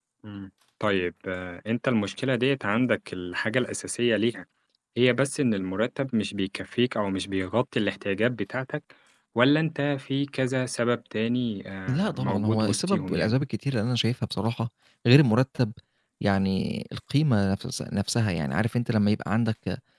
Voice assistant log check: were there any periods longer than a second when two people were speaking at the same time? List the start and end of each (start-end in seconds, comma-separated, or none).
11.9-13.3